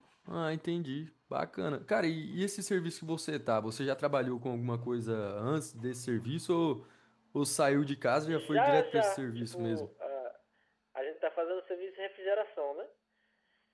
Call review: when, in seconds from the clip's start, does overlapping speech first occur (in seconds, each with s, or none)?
8.3 s